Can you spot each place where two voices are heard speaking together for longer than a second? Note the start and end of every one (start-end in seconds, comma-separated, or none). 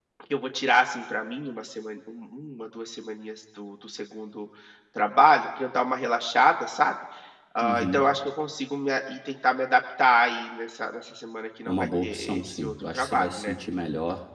11.7-13.5